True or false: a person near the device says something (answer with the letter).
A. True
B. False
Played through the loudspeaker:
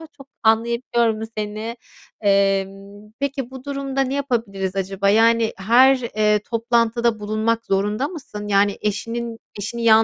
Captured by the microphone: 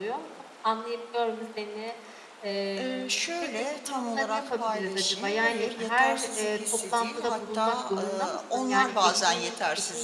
A